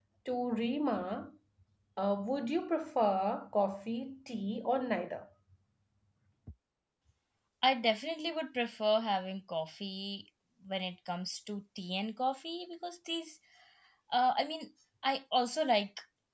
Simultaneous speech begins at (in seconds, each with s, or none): none